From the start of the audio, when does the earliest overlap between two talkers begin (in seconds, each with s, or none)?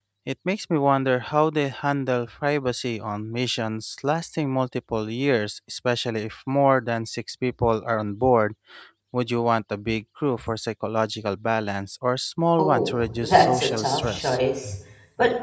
12.6 s